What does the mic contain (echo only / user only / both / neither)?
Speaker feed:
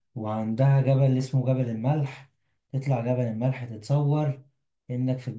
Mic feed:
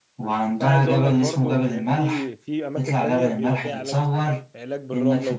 both